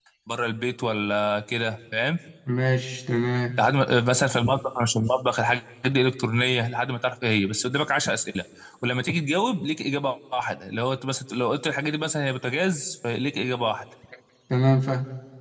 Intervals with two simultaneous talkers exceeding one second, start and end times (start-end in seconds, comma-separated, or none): none